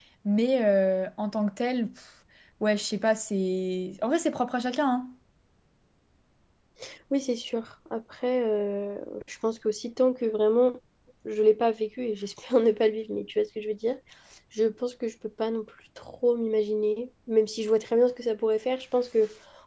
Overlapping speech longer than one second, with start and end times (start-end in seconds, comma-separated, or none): none